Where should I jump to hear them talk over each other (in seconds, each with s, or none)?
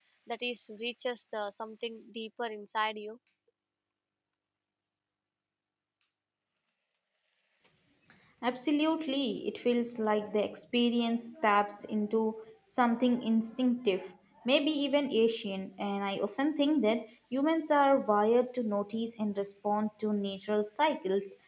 none